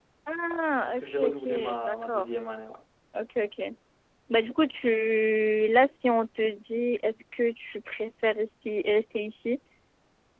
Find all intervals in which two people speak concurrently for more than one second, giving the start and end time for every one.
0.9-2.2

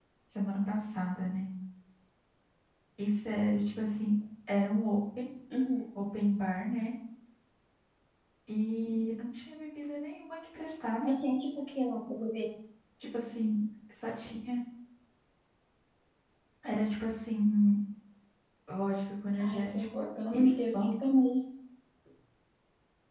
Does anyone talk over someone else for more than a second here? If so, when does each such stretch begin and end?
19.4-20.9

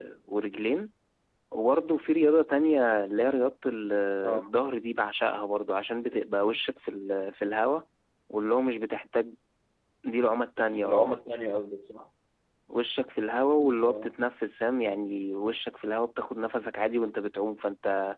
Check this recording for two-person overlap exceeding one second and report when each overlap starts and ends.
none

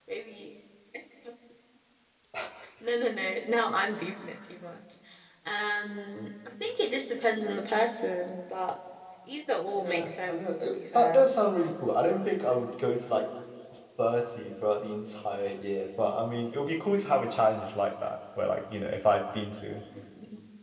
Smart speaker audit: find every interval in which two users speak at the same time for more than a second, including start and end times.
9.8-11.3

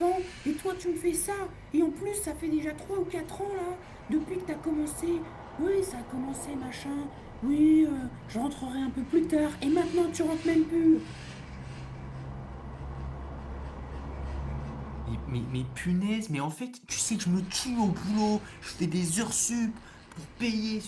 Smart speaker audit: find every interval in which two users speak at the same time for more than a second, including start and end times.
none

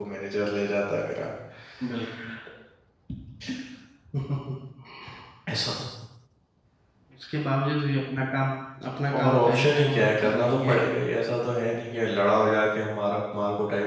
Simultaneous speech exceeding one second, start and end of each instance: 9.2-10.7

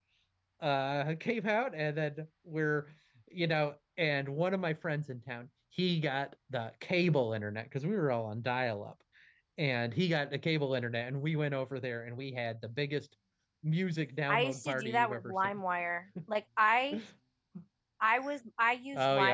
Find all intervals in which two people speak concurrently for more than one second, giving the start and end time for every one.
14.3-15.6

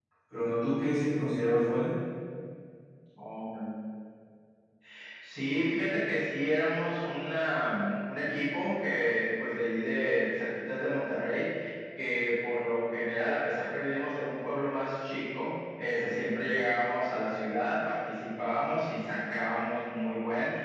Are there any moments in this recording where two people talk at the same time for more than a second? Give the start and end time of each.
none

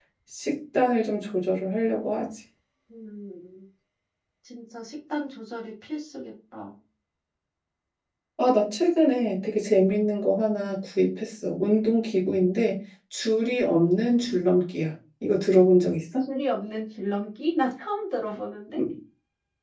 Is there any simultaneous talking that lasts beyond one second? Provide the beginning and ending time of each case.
none

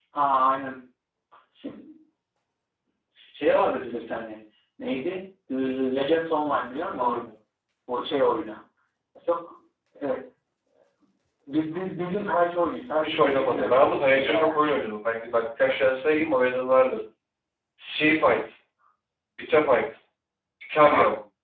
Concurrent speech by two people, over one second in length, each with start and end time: 13.0-14.5

